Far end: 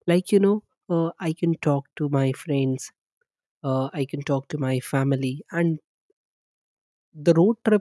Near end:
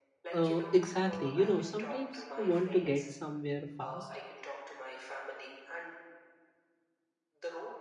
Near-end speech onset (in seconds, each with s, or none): 0.3 s